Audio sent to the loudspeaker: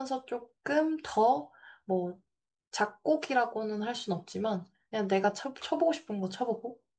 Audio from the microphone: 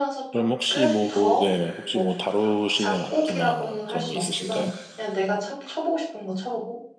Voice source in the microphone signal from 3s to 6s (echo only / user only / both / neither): both